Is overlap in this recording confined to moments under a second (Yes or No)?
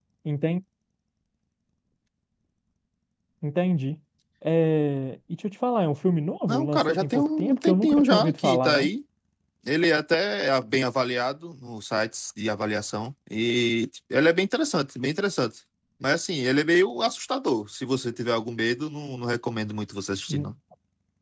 No